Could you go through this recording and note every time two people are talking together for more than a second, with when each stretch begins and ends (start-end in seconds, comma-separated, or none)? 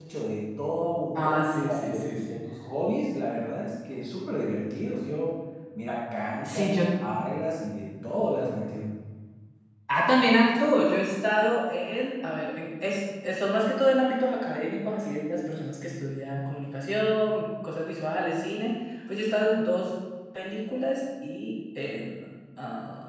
1.1-2.4